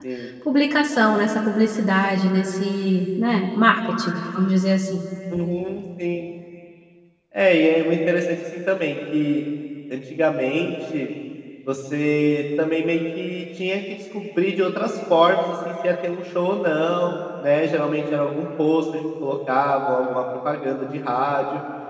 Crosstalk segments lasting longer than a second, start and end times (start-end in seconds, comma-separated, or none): none